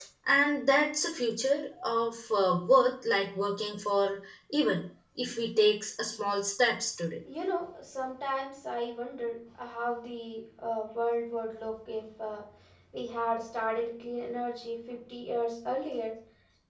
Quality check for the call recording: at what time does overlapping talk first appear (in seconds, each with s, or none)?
none